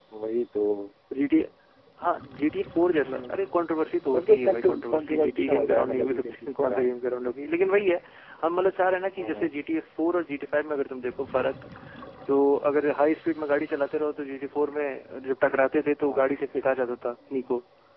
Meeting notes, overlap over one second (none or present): present